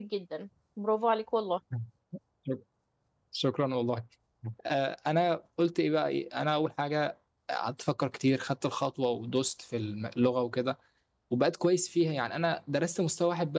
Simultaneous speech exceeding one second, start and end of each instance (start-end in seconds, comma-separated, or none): none